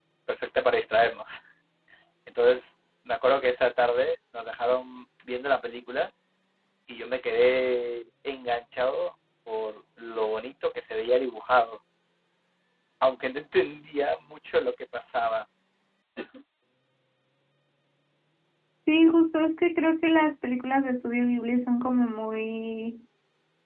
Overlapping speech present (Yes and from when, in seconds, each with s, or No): No